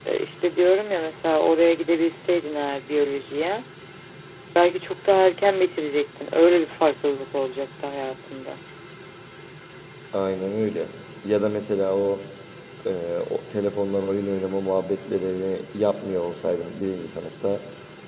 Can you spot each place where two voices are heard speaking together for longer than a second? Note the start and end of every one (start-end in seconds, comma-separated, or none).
none